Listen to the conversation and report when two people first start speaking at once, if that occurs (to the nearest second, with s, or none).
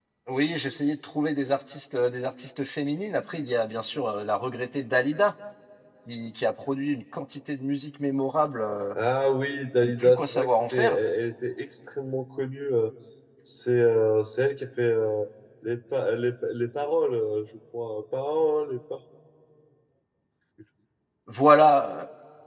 10 s